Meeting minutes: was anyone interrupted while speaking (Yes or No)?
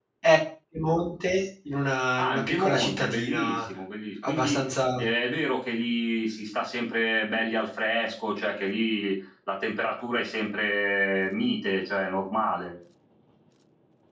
Yes